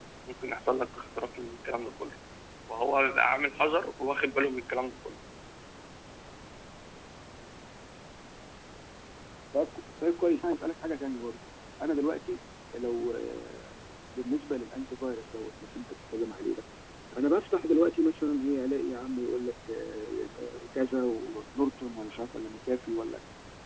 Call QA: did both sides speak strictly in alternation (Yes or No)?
Yes